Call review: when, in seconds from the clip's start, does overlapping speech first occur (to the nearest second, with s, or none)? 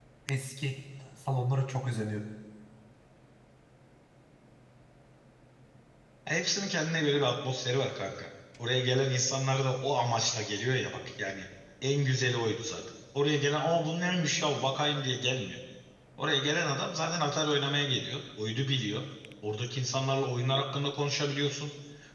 none